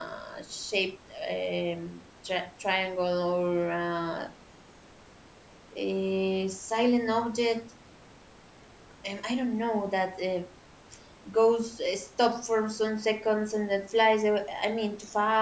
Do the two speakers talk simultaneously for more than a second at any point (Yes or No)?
No